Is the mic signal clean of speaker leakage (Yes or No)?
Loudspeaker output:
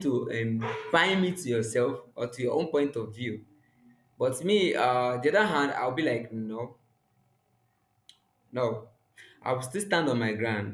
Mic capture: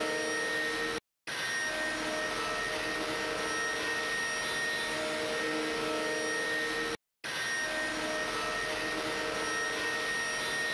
Yes